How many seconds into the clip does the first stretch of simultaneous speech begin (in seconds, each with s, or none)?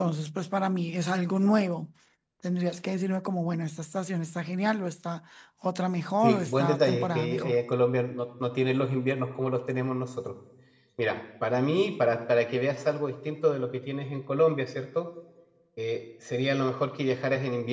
6.2 s